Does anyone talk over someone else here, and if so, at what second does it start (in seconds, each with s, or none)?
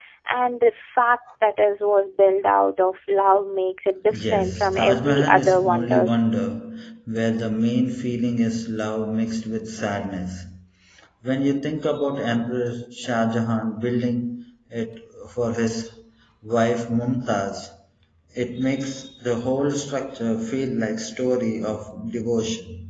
4.1 s